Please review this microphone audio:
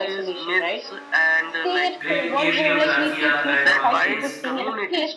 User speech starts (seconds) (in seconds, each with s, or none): 2.0 s